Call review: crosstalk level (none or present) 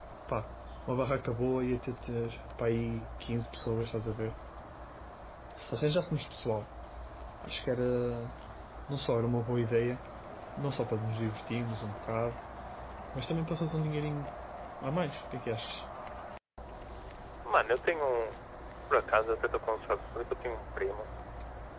none